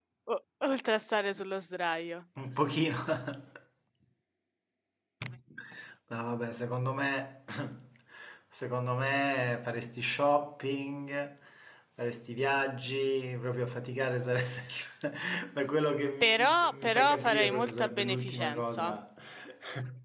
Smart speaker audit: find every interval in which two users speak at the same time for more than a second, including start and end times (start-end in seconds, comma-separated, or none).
16.2-19.0